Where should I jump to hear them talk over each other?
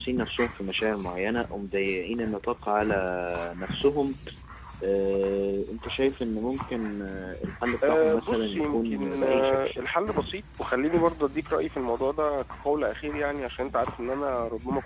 7.8 s

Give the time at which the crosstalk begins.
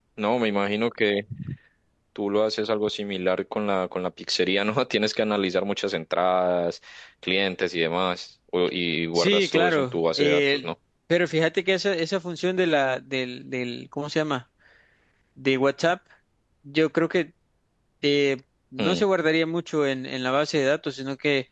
9.2 s

